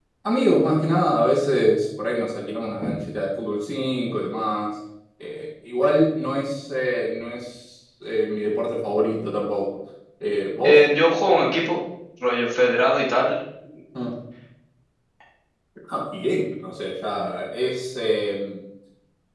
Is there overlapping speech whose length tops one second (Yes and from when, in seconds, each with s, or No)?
No